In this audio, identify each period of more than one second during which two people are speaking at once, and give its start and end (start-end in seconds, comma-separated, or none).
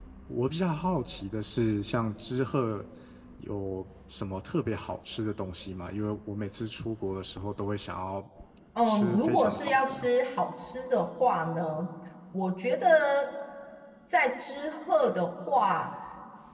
8.8-10.1